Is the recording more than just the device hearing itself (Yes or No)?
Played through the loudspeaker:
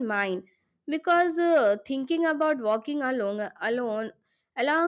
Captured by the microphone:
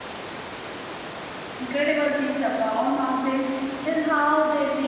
Yes